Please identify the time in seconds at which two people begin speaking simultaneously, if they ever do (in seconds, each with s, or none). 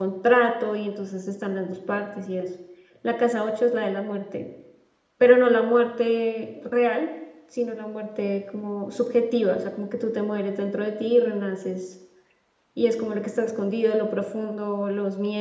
none